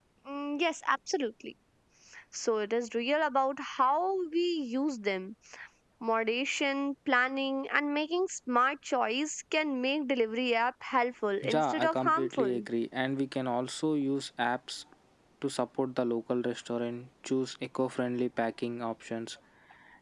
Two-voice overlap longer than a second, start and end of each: 11.4-12.7

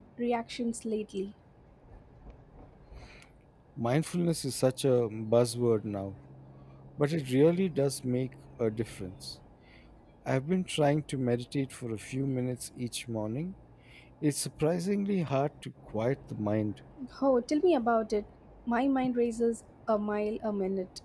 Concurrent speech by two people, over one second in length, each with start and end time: none

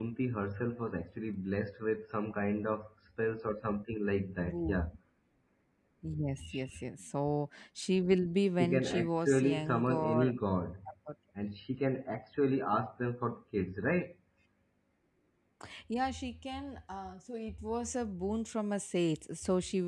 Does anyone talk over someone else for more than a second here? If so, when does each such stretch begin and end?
8.6-10.3

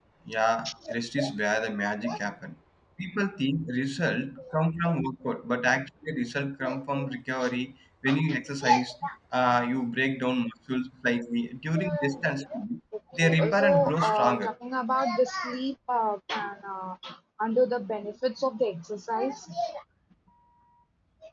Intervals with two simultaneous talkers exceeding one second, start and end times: 13.2-14.5

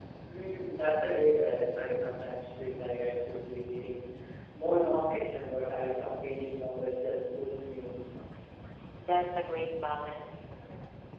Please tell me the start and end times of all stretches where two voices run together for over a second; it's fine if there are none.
none

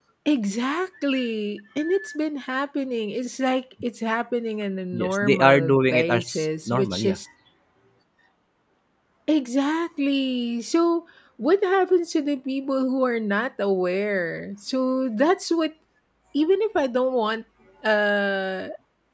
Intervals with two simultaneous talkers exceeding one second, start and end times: 4.9-7.2

